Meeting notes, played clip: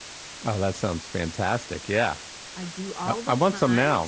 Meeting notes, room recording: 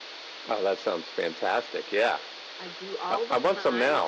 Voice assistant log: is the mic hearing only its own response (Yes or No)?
Yes